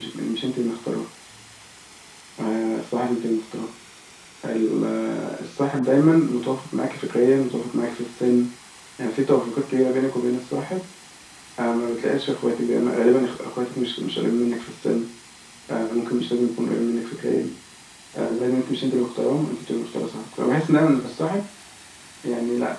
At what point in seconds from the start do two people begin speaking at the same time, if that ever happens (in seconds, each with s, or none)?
none